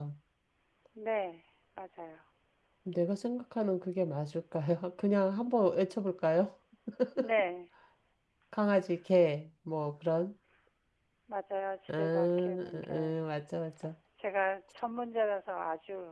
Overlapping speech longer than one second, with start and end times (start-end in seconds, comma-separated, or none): 11.9-13.2